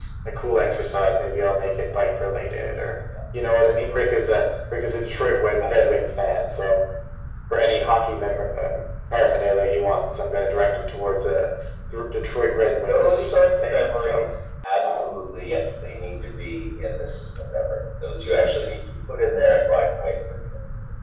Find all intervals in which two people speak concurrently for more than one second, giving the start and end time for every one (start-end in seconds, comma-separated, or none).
12.9-14.2